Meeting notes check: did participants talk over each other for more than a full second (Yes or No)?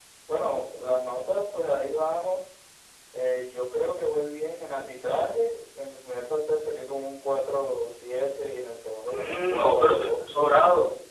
Yes